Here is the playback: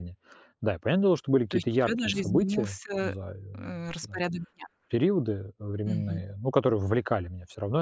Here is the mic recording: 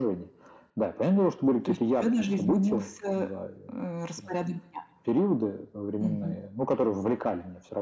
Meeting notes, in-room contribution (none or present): none